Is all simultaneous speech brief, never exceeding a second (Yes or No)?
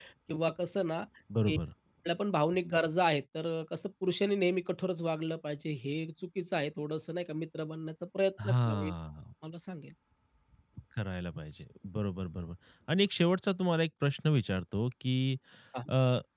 Yes